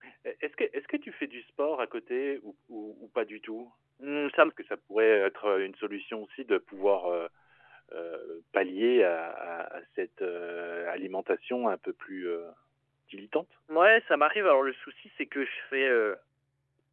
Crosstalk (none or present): none